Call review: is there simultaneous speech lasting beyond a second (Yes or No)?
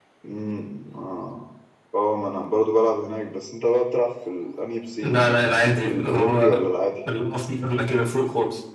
Yes